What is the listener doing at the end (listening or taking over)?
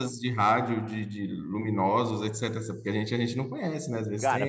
taking over